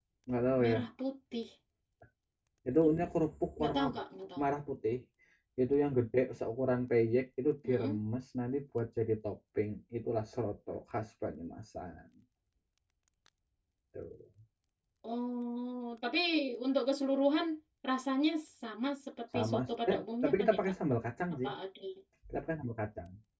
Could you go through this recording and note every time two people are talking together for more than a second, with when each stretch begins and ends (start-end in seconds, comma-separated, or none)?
19.3-20.7